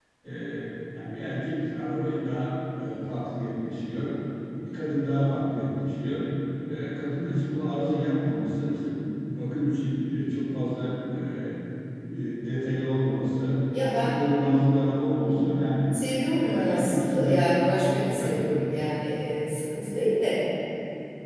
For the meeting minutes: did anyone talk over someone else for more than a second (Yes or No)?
Yes